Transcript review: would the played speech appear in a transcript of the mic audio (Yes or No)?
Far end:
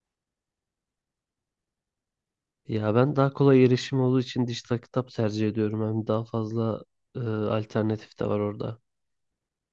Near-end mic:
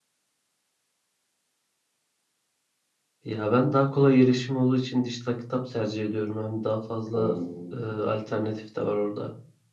Yes